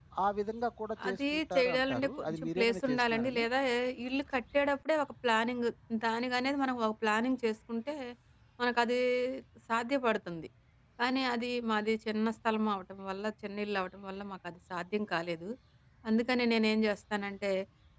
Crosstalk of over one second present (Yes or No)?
Yes